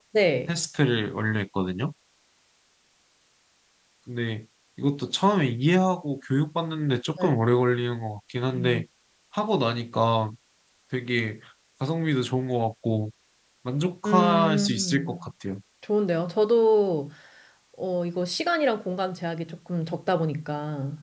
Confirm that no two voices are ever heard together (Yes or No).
No